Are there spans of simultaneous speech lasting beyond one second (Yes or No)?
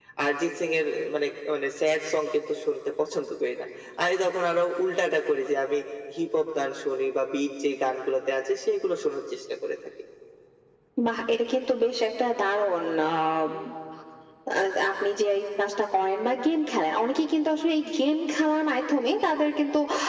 No